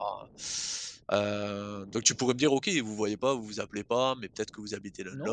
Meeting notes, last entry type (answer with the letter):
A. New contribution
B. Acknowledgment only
A